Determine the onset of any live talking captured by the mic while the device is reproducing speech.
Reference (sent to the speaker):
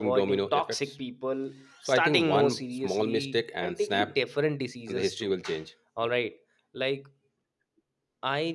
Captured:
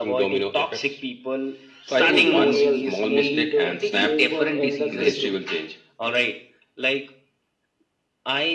2.0 s

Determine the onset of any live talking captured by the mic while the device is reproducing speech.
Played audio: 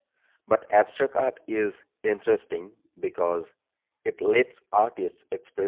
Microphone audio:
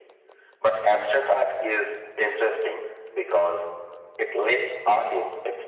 none

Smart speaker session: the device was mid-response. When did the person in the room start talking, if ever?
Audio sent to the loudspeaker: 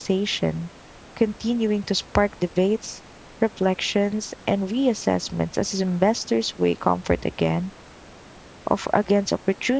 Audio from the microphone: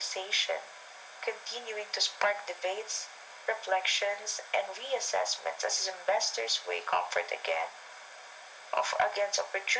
none

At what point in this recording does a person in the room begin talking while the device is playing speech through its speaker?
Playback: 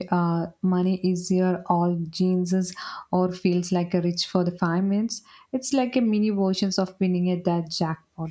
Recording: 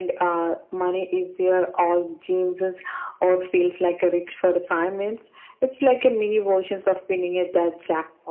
none

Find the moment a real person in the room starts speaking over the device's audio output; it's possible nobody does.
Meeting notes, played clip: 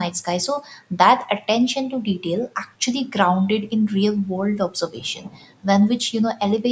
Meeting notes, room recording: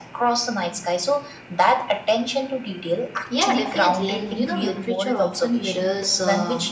3.3 s

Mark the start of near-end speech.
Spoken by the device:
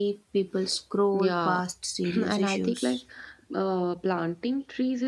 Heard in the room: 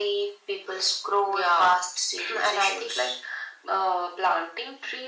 none

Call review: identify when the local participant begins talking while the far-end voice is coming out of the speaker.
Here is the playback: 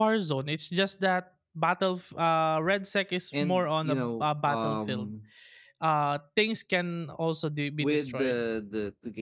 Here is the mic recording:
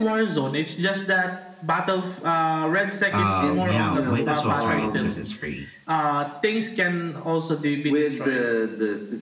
3.1 s

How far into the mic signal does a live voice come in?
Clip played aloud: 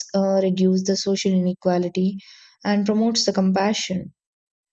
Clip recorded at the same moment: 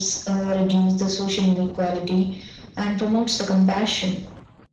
none

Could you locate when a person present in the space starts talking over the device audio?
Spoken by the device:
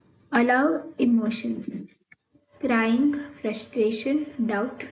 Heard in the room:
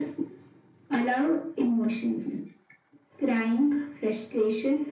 none

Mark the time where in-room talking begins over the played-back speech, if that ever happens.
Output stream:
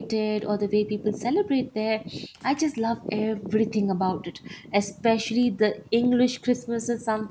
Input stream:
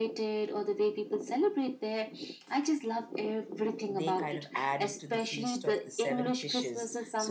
3.9 s

